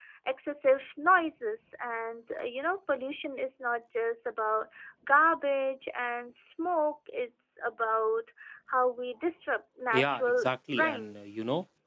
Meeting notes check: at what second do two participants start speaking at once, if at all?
9.9 s

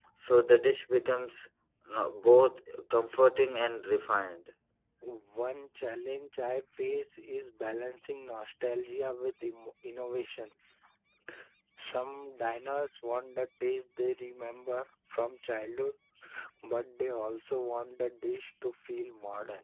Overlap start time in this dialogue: none

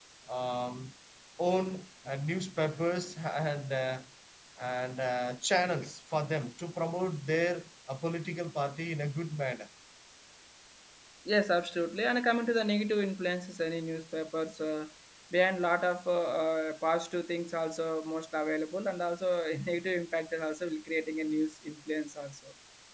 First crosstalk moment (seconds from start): none

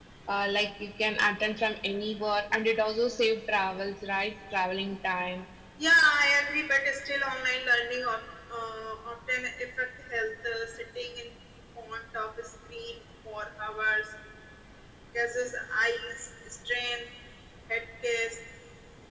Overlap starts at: none

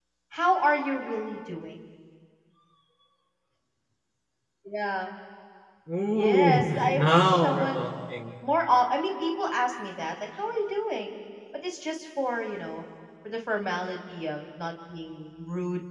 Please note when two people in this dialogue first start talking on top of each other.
6.1 s

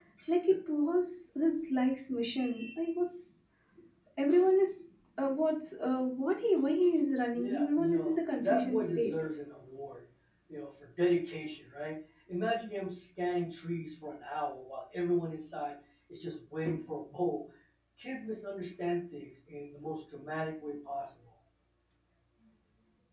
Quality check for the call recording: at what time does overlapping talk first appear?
7.3 s

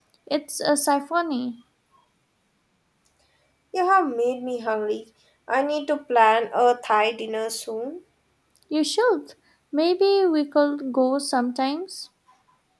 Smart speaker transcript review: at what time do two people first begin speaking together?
none

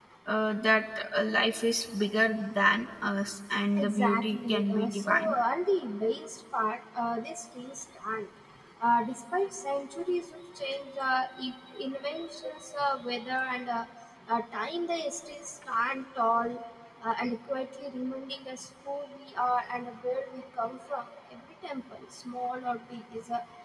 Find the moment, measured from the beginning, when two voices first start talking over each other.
3.8 s

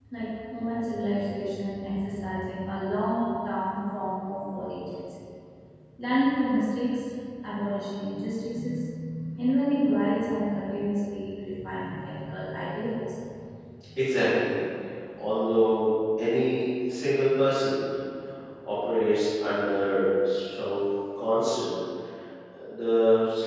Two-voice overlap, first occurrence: none

